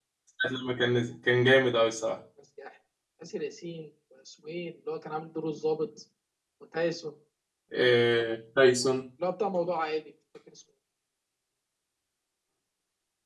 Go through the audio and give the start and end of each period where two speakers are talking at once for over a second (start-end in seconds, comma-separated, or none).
none